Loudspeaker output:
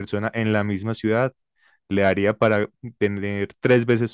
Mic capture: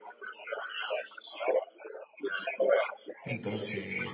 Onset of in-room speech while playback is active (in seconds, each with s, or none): 3.2 s